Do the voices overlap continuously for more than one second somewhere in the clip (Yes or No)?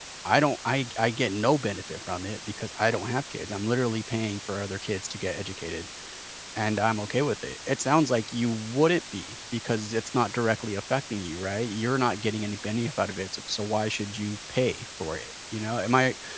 No